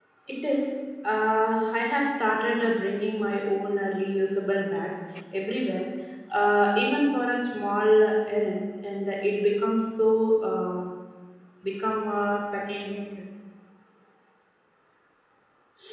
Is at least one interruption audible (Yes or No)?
No